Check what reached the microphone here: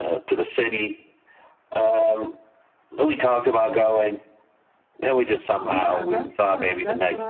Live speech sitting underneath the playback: Yes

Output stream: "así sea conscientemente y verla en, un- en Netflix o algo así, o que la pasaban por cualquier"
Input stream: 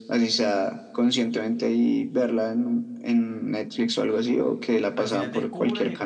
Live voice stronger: No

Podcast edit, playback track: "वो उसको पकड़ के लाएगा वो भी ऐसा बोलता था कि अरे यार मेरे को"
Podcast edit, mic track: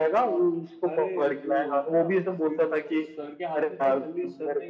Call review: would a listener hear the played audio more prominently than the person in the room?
Yes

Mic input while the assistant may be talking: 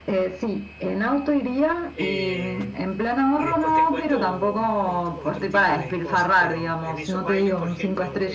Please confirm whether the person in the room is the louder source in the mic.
No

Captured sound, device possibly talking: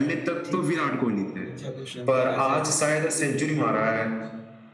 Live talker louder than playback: No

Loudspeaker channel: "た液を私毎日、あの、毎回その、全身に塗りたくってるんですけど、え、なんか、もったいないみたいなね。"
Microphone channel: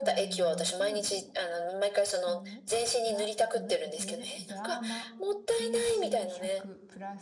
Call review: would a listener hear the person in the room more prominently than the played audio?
No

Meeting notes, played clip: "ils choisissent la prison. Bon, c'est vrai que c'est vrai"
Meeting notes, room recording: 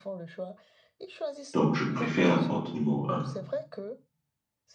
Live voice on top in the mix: Yes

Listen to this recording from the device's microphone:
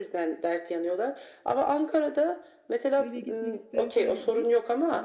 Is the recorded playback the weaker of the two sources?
No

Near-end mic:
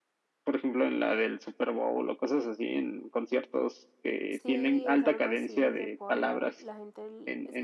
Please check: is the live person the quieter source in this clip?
Yes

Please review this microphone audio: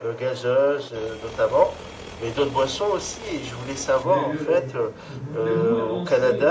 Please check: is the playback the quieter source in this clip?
No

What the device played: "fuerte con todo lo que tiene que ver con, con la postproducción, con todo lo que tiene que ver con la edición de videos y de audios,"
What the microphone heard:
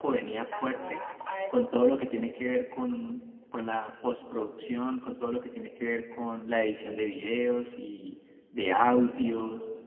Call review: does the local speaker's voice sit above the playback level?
No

